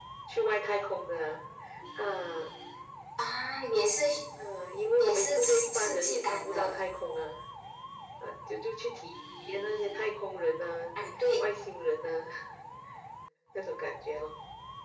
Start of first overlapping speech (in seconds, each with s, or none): 5.0 s